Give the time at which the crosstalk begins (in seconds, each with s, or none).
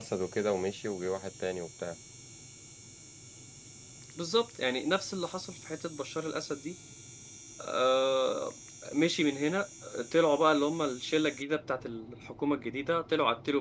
none